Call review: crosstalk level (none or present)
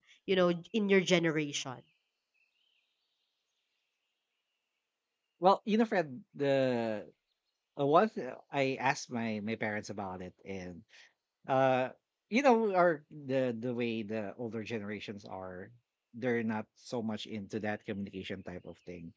none